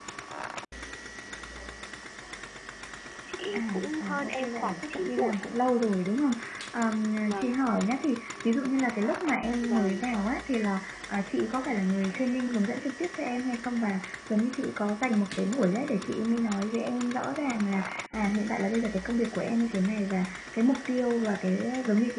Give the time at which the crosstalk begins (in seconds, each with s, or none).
3.5 s